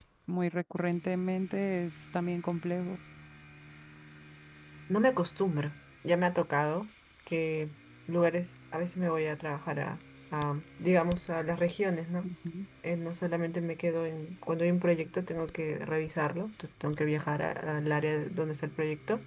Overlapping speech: No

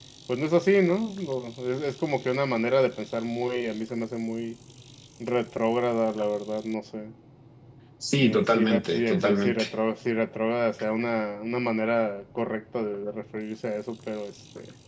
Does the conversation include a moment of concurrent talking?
Yes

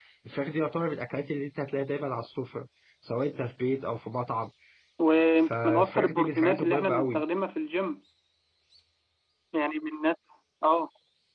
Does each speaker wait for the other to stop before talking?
No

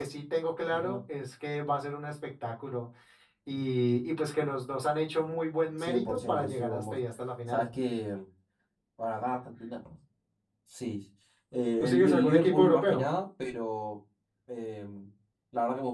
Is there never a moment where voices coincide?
No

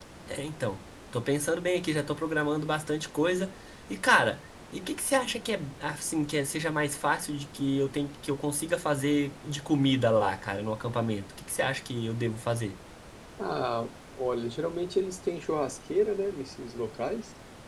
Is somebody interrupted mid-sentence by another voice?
No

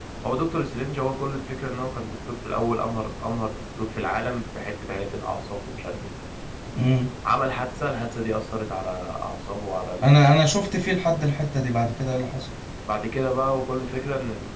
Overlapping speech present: No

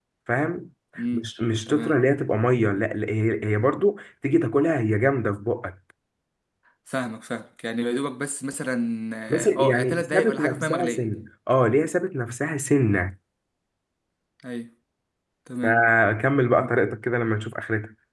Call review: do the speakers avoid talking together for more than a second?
No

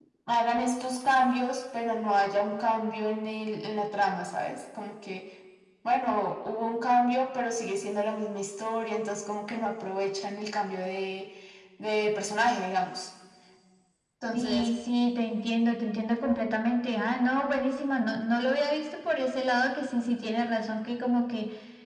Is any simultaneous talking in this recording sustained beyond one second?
No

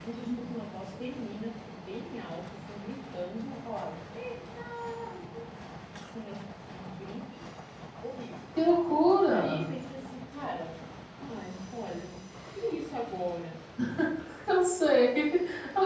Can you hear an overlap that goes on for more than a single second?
No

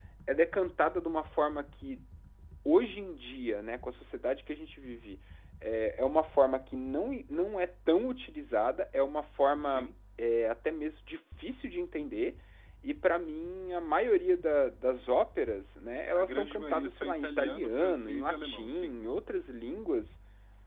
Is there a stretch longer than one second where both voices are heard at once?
Yes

